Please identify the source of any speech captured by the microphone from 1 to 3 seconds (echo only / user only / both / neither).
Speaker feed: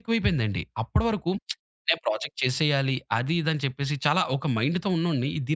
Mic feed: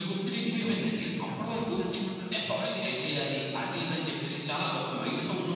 both